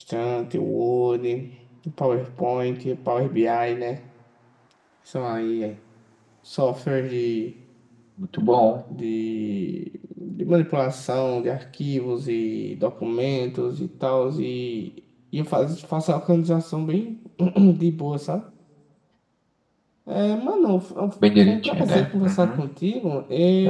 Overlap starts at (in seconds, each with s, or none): 21.2 s